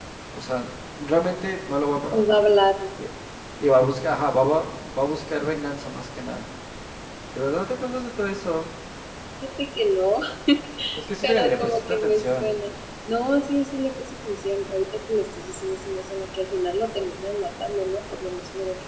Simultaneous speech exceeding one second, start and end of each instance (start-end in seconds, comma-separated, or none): 11.2-12.5